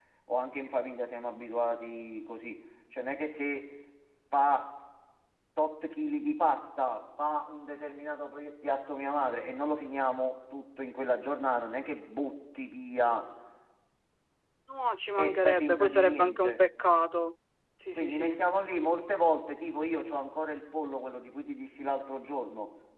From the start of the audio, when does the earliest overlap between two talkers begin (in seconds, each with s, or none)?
15.2 s